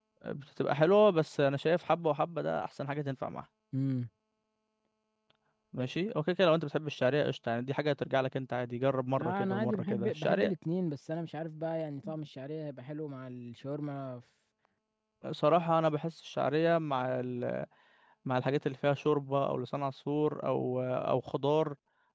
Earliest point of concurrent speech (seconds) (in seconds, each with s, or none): 9.2 s